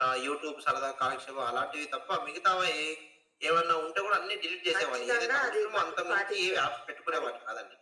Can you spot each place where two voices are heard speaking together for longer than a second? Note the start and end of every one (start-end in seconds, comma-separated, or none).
4.7-6.6